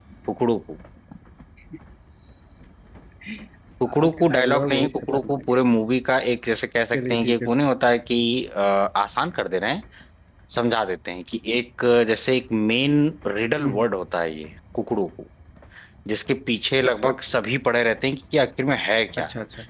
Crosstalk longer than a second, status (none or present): present